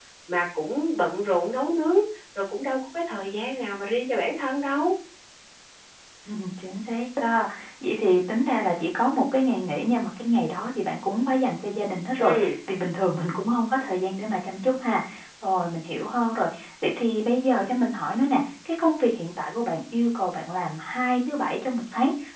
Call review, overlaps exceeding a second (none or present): none